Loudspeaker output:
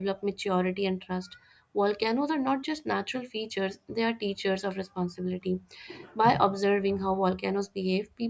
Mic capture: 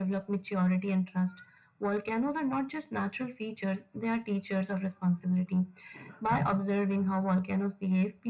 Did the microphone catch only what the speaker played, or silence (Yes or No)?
Yes